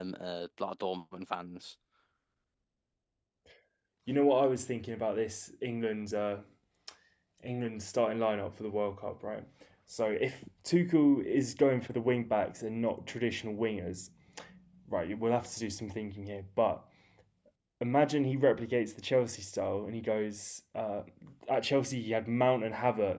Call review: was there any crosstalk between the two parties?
No

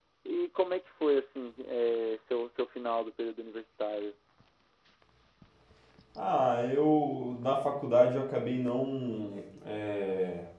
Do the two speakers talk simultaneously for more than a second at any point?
No

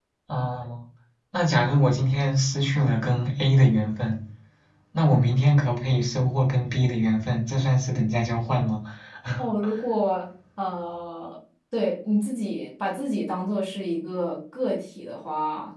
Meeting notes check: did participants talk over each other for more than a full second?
No

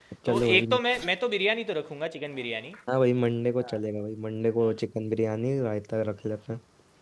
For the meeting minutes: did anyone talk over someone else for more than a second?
No

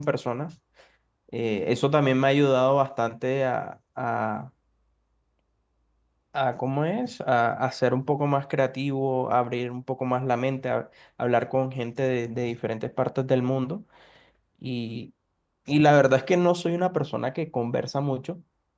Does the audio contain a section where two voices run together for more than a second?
No

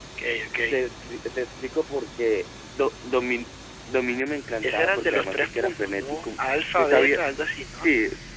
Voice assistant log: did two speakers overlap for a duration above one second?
Yes, from 4.6 s

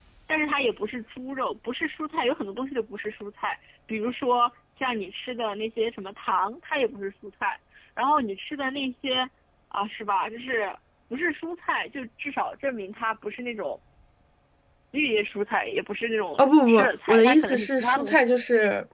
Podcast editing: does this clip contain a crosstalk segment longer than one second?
Yes, from 16.4 s

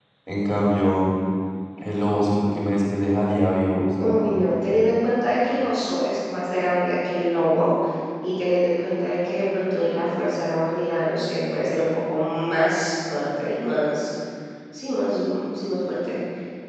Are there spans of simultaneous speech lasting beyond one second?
No

